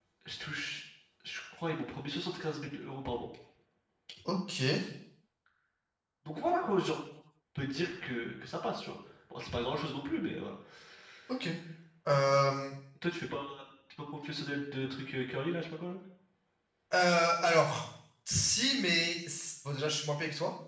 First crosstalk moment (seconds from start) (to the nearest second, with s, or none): none